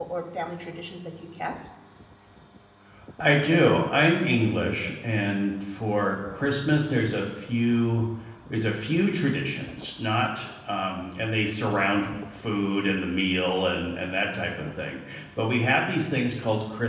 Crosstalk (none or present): none